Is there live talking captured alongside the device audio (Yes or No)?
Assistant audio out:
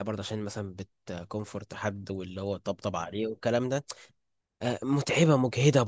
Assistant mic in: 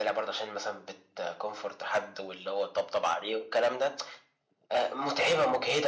No